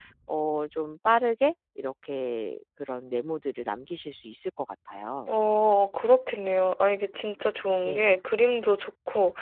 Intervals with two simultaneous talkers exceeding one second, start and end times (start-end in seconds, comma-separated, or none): none